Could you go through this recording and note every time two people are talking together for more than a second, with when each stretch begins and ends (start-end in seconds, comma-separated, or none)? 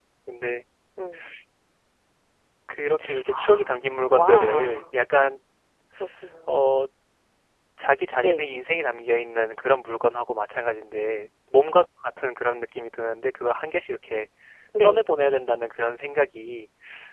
3.3-4.9